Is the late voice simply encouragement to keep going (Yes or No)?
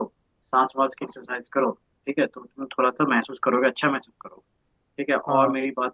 Yes